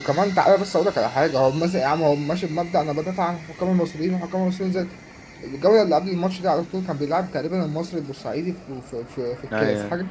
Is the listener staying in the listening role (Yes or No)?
Yes